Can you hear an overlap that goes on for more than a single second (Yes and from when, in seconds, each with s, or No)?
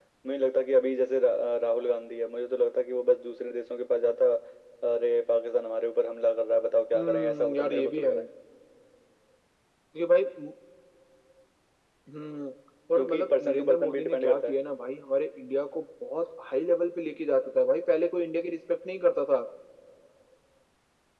Yes, from 7.0 s